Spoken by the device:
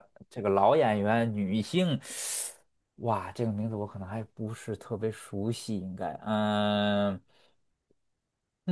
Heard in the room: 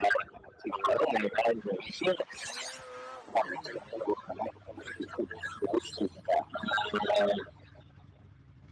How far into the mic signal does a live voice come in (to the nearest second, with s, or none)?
none